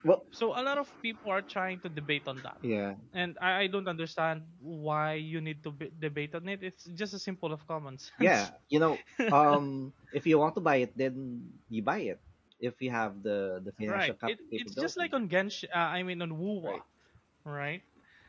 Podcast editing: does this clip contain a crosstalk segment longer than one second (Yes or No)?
Yes